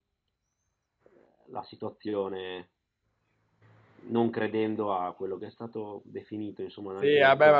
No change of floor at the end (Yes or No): No